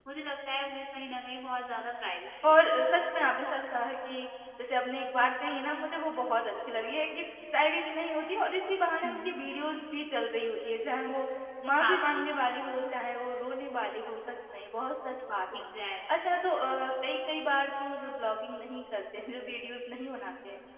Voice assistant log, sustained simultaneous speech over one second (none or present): none